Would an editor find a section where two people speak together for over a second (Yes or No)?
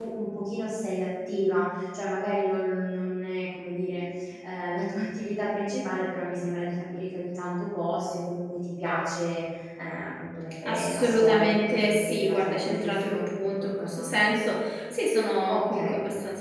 Yes